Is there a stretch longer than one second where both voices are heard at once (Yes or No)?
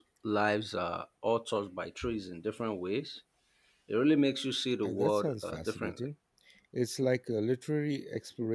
Yes